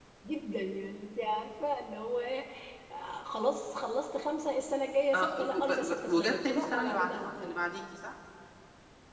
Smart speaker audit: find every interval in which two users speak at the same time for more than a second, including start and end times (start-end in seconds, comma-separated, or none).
5.1-7.5